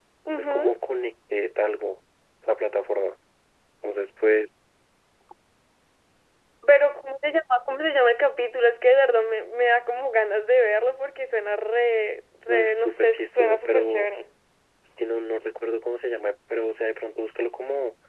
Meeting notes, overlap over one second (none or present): present